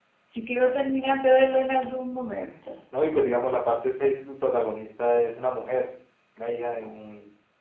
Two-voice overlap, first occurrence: none

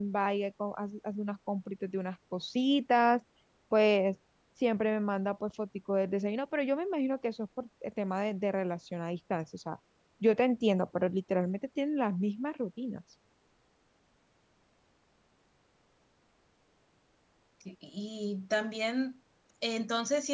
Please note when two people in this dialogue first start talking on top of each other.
none

